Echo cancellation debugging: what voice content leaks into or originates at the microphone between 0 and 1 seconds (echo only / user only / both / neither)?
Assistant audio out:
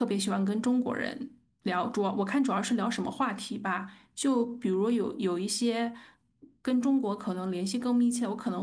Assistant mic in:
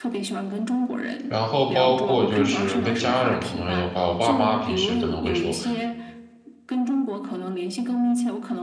echo only